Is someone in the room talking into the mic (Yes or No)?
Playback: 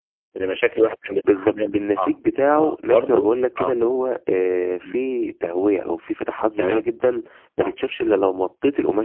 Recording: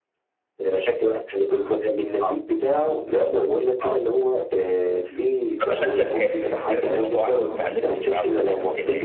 Yes